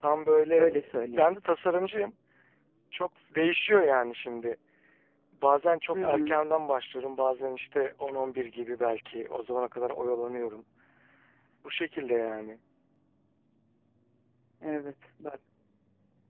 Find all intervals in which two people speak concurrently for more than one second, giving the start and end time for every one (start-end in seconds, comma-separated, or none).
none